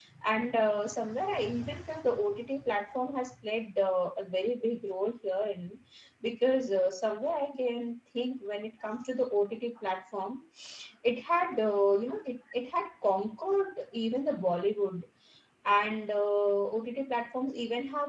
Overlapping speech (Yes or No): No